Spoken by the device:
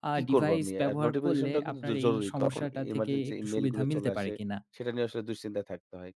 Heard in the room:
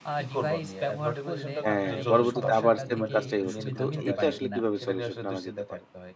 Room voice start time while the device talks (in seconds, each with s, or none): 1.6 s